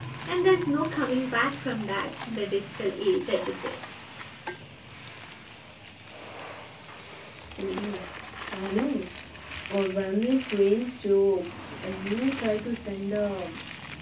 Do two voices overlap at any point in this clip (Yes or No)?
No